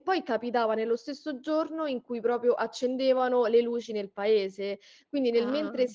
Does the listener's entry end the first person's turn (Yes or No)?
No